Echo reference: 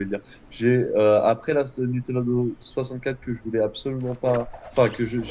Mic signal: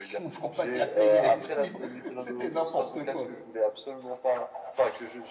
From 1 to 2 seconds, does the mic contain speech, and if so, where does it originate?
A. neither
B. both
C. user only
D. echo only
B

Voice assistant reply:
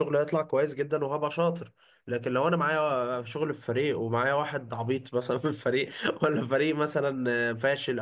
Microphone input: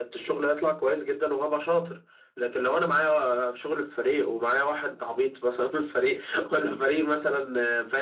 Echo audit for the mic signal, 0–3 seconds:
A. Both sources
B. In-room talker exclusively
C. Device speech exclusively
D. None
C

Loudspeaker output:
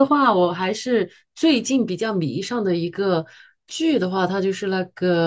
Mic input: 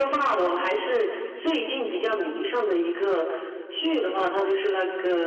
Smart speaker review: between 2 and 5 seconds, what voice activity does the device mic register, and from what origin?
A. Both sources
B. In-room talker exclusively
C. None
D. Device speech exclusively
D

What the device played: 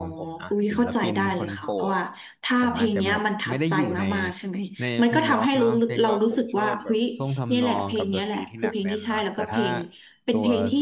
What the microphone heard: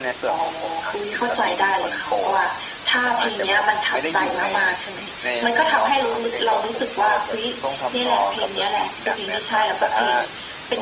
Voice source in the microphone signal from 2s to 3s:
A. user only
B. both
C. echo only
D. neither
C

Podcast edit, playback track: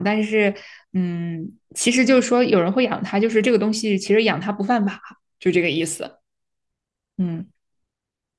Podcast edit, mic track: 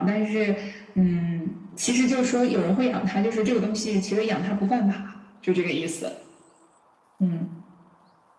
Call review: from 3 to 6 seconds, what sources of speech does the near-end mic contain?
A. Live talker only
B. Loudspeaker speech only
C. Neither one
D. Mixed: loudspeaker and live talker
B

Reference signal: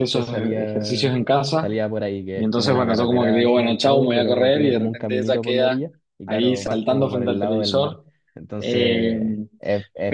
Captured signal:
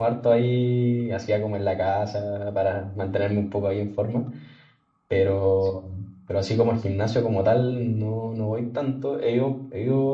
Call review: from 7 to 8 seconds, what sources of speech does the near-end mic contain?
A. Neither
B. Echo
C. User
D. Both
C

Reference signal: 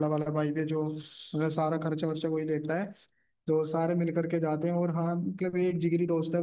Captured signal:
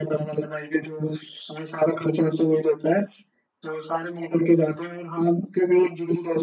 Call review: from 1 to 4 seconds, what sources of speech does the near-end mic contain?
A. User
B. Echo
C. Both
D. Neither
B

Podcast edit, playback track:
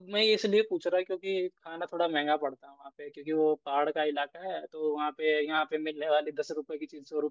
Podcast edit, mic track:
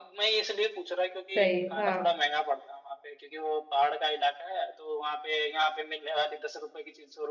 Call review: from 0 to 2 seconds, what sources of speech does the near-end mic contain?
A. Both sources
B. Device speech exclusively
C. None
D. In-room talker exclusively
A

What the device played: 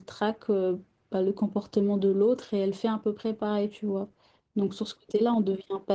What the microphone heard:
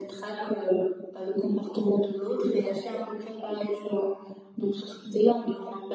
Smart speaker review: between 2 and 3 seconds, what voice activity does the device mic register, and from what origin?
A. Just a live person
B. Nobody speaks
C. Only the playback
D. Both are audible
C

